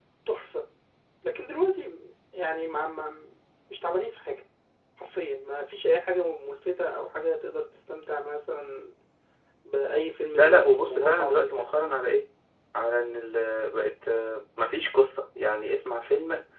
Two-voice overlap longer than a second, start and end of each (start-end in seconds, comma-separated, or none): 10.4-11.7